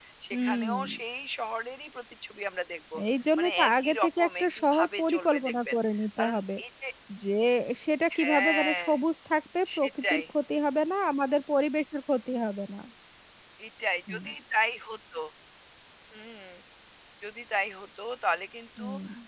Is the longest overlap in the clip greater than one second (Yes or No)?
Yes